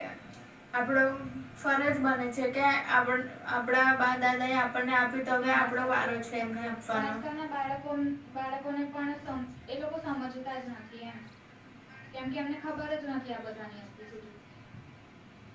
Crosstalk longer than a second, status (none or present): present